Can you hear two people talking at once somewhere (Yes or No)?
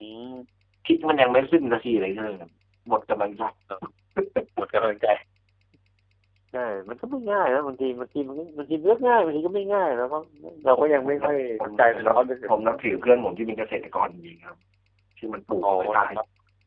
Yes